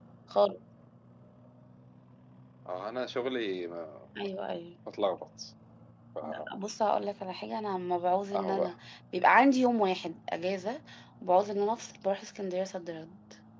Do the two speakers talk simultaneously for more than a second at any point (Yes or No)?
No